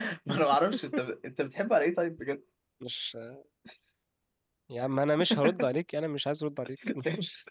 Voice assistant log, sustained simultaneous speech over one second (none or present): none